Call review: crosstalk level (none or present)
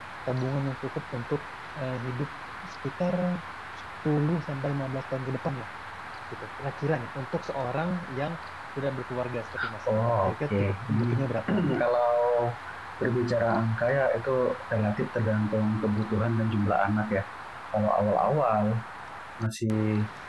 present